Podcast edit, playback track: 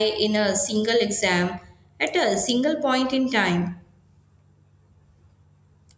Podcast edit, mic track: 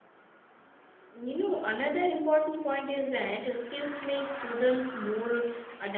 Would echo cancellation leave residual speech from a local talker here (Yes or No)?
Yes